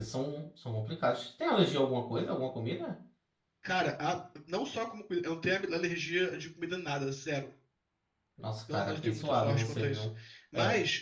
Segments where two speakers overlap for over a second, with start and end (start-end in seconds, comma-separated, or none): 8.7-10.1